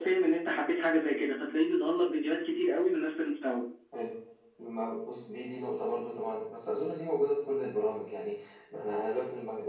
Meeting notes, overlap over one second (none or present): none